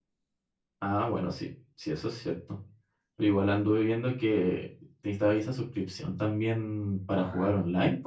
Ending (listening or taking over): taking over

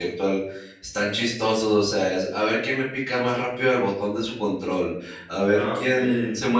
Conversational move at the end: listening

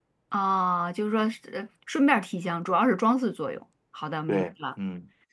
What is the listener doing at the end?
taking over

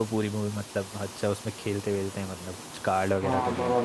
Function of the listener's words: taking over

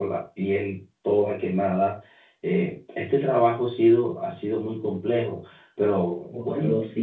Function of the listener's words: taking over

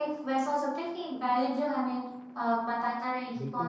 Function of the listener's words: taking over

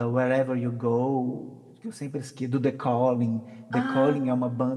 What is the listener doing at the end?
listening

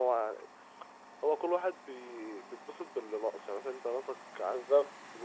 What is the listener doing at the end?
listening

